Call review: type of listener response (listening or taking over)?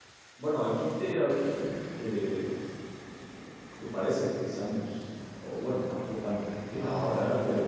taking over